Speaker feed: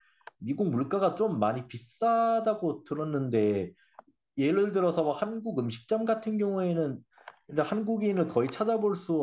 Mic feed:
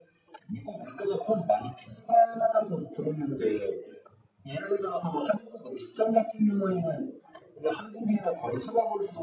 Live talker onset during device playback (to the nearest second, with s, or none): none